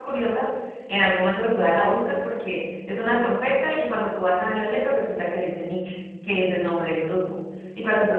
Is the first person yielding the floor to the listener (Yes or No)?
No